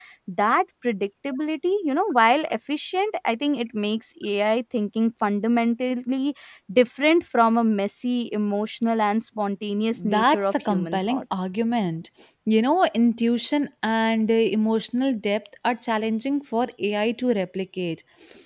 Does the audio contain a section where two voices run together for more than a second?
Yes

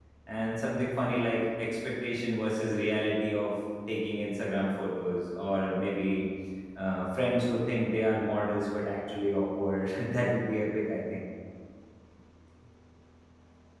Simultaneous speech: No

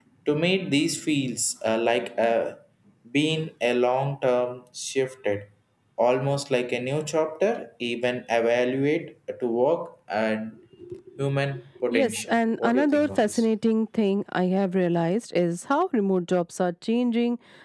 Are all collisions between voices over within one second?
No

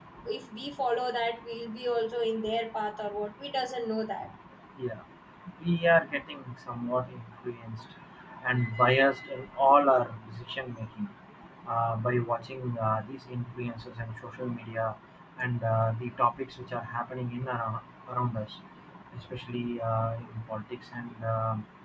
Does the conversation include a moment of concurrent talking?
No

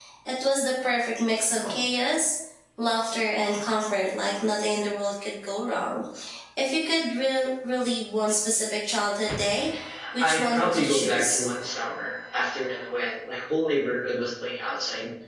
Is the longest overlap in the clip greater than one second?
Yes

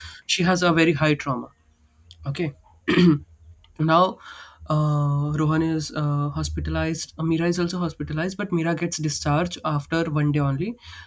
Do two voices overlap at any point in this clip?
No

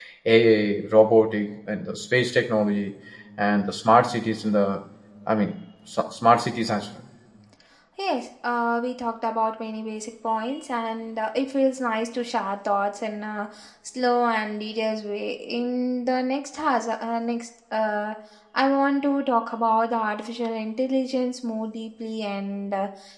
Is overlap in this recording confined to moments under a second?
Yes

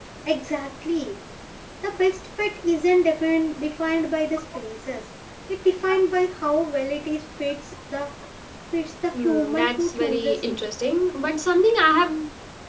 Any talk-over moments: Yes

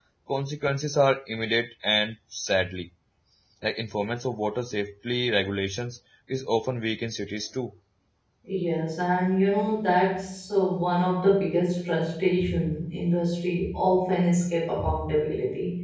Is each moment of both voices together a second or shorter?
Yes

